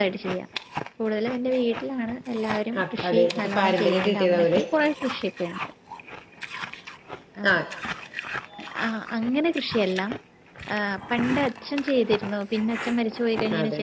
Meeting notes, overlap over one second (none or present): present